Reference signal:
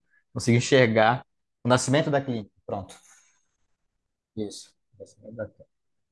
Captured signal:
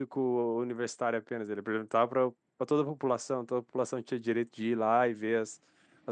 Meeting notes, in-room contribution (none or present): present